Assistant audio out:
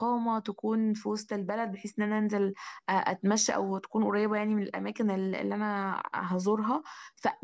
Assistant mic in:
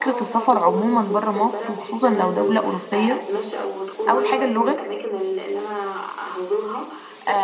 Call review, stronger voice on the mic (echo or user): user